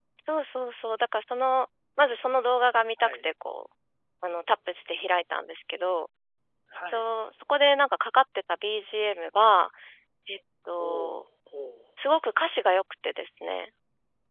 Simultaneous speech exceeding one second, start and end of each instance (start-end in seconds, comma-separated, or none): none